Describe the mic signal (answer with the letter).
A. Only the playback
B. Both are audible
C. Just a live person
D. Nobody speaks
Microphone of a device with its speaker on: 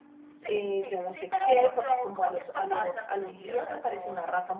B